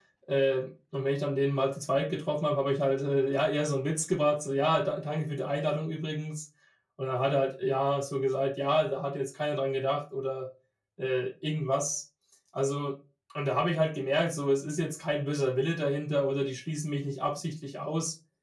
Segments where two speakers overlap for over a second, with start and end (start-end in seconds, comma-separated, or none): none